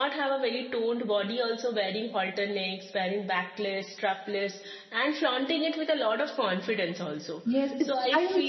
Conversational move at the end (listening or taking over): taking over